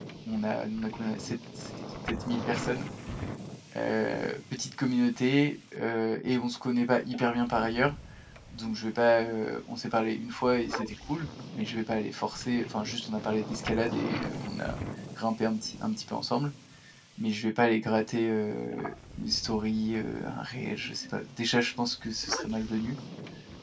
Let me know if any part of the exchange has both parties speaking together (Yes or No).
No